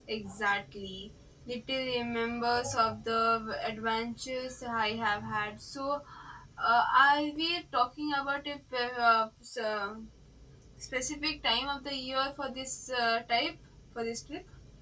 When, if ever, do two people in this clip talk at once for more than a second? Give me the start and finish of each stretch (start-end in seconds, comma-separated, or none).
none